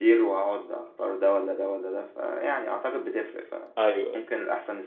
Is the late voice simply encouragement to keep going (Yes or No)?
Yes